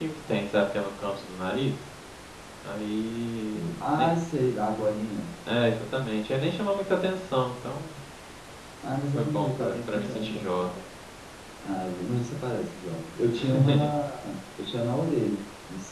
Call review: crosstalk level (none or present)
present